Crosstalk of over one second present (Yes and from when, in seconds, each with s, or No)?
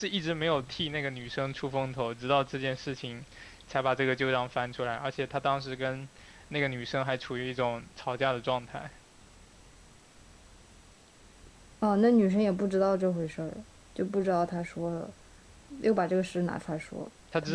No